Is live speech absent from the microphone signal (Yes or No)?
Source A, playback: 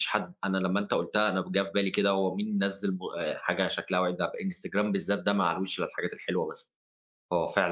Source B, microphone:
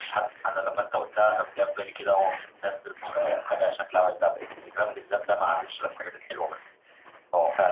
Yes